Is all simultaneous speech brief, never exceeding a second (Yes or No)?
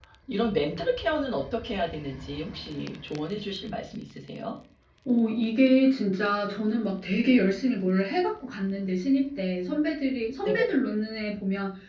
Yes